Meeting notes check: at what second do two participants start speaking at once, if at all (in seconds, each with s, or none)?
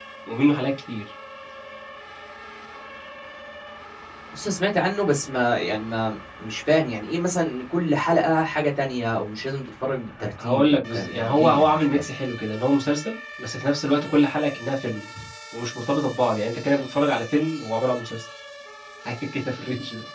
10.2 s